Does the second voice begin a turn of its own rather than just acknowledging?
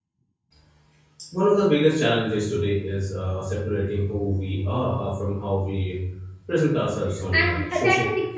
Yes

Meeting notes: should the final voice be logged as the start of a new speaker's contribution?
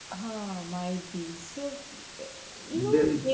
No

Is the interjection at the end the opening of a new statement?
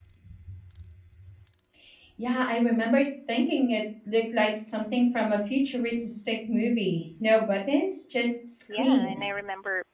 Yes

